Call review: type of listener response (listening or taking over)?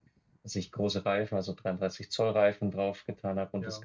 listening